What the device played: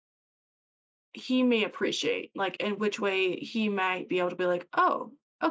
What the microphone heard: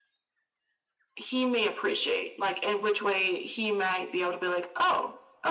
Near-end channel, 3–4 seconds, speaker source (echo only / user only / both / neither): echo only